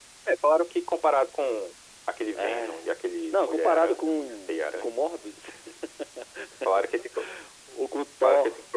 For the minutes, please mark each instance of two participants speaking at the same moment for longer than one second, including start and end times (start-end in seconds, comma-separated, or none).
3.3-4.9